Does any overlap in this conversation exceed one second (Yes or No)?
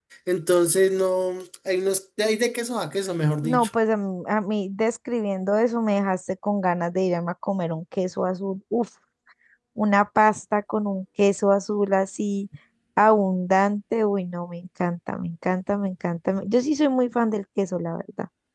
No